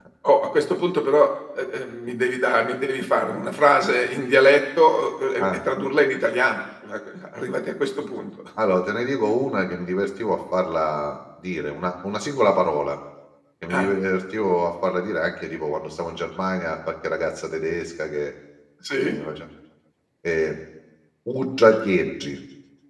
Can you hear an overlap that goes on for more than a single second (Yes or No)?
No